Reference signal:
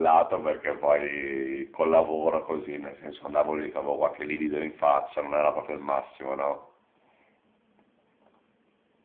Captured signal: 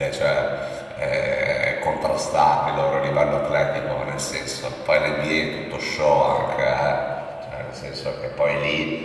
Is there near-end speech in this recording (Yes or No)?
Yes